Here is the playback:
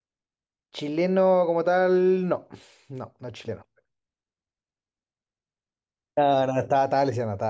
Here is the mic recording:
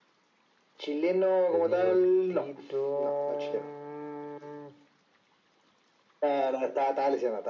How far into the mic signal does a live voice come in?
1 s

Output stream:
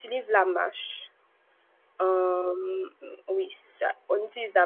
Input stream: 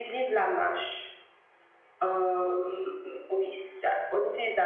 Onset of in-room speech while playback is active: none

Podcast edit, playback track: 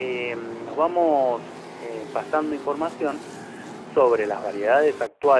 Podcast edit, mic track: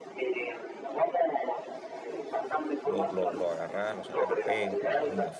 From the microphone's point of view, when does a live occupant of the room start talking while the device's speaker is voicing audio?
3 s

